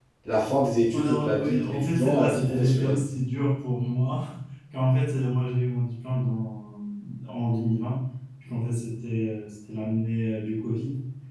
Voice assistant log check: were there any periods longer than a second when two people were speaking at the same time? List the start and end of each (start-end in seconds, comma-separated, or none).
0.9-3.0